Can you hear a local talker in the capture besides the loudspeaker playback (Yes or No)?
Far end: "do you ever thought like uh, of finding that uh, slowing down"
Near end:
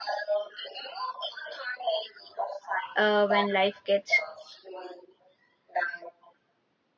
Yes